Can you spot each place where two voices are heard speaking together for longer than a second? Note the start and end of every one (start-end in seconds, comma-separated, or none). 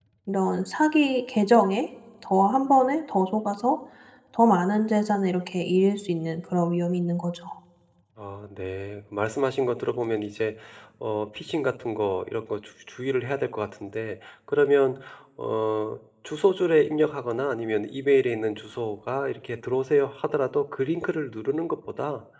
none